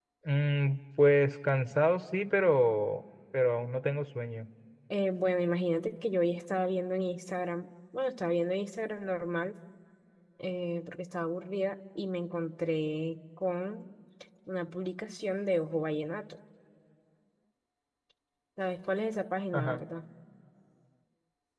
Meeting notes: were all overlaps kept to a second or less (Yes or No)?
Yes